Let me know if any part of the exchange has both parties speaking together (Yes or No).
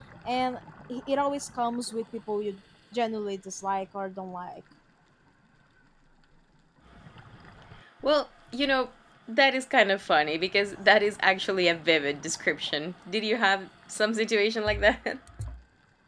No